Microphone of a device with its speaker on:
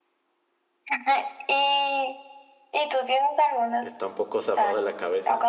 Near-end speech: present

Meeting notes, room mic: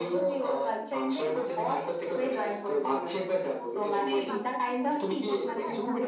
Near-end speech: present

